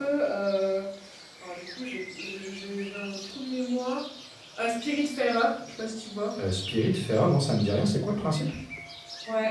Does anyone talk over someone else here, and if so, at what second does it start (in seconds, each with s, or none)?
none